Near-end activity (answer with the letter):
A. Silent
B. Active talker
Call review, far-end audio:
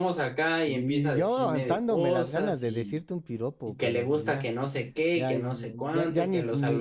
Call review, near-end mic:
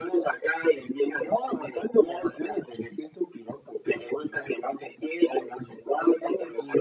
A